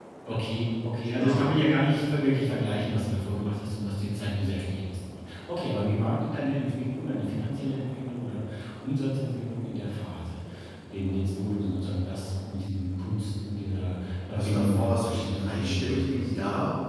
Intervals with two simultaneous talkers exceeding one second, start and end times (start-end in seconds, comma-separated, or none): 14.3-16.3